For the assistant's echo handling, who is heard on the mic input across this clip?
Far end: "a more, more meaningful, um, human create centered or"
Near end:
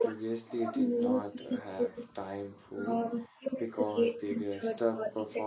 both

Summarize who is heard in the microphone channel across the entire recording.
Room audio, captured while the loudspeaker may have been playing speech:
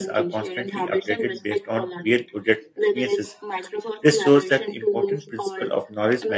both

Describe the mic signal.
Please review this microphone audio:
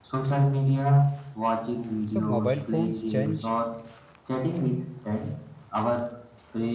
both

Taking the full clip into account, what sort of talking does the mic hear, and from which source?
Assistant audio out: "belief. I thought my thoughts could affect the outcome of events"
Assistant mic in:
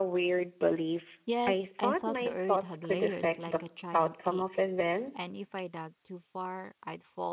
both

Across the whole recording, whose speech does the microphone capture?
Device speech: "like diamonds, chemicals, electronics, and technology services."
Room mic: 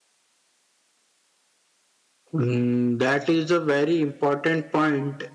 user only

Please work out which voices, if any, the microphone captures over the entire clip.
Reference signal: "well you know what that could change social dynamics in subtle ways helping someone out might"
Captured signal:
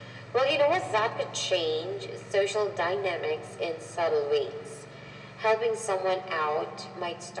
echo only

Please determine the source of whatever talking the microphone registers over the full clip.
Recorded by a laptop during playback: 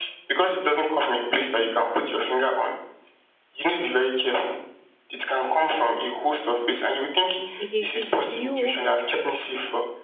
both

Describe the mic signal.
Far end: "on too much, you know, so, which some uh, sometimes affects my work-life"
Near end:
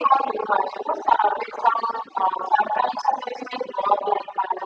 echo only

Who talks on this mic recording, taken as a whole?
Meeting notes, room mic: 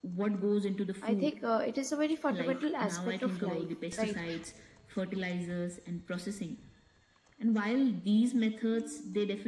both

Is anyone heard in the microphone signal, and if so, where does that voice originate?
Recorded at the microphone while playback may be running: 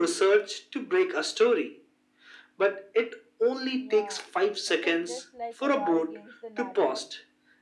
both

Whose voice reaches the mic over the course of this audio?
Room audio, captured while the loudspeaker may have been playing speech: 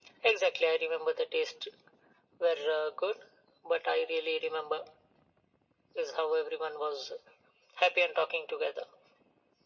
echo only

